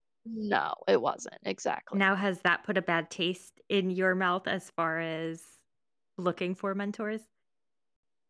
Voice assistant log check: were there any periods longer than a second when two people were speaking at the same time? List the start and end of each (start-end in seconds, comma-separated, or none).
none